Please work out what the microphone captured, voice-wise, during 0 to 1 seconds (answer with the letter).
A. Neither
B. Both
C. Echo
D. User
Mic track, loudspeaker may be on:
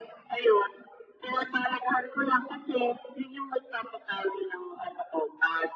C